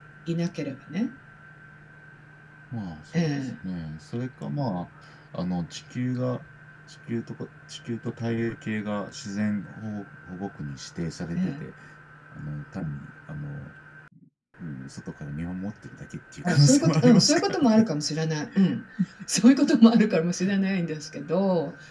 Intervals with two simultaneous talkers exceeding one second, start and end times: 16.4-17.8

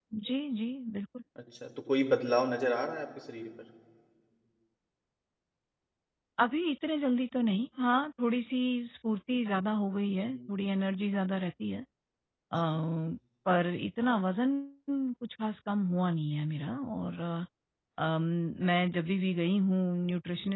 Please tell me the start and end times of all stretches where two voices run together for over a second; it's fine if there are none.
none

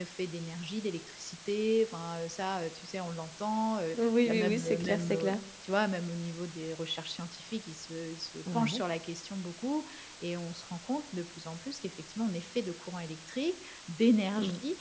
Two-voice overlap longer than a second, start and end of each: 4.0-5.4

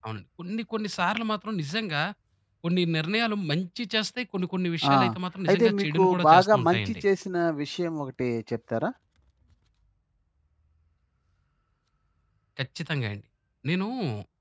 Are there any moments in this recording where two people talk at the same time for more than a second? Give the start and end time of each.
5.5-7.0

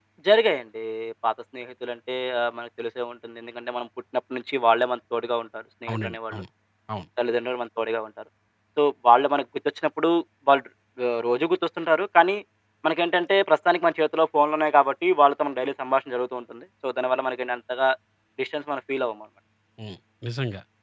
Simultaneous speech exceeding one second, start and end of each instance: none

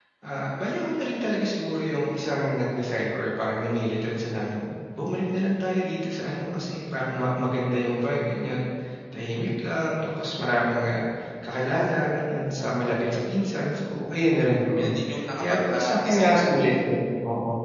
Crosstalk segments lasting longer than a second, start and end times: 15.3-16.7

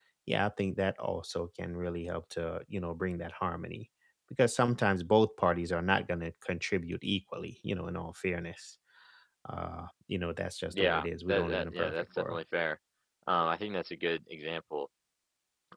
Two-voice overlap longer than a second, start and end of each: 10.7-12.4

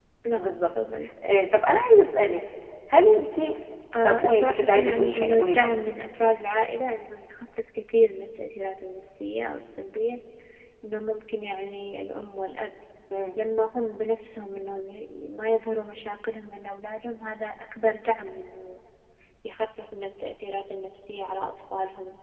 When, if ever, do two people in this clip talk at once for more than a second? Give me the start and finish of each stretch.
4.0-5.7

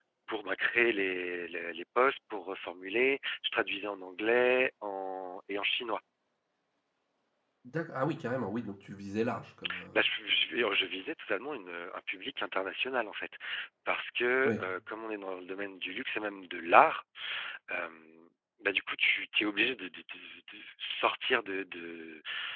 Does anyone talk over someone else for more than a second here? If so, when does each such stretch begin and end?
none

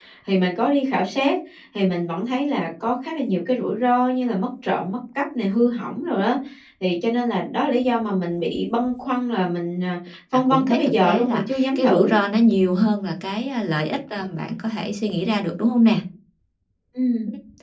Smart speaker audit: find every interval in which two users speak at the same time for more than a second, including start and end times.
10.3-12.2

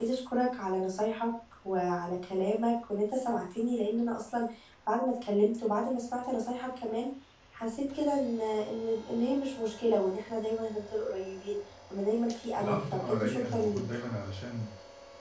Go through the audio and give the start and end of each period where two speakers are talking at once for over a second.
12.6-13.8

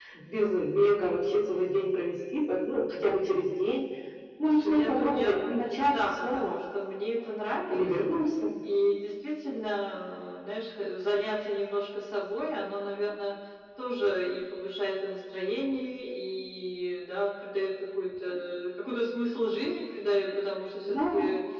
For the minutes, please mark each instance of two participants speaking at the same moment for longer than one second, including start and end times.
4.4-6.6

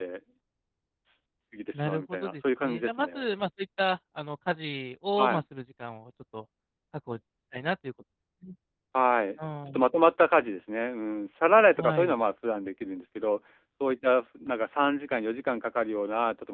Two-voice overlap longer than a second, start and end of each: 1.7-3.3

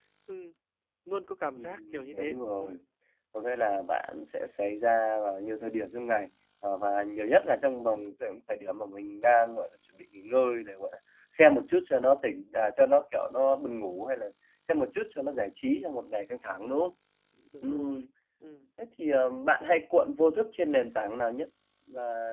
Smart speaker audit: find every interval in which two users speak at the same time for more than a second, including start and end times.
1.6-2.8

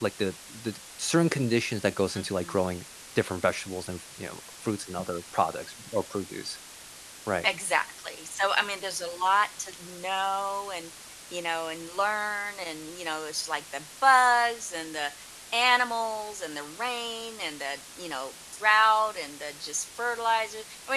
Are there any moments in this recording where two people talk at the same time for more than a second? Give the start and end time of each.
none

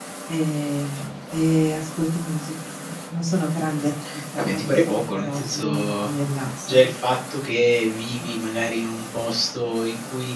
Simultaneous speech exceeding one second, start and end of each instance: 4.4-6.1

